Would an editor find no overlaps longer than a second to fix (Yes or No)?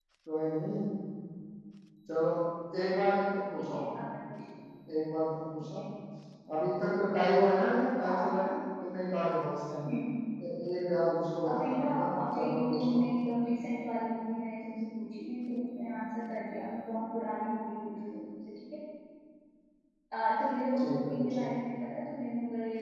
No